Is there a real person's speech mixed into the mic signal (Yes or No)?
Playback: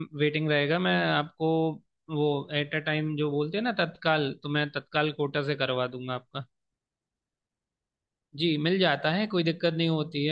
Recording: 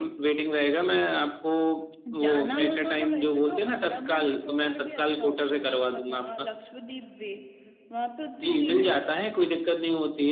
Yes